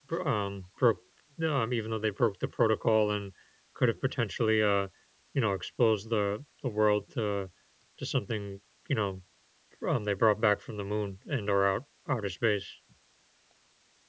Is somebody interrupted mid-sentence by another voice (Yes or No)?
No